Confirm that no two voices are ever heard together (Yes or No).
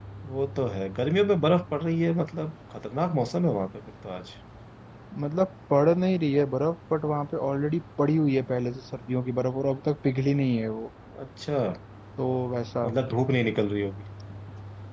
Yes